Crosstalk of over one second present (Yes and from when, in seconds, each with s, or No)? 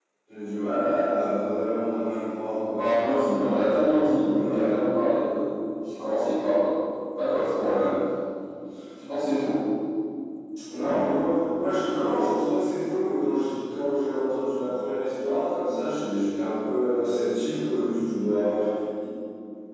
No